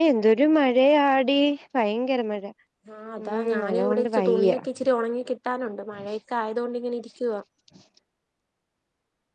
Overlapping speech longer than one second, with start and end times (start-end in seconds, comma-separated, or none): 3.2-4.6